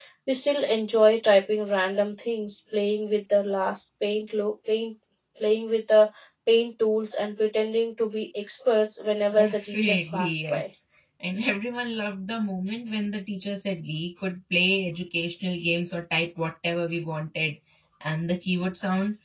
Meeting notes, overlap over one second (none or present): present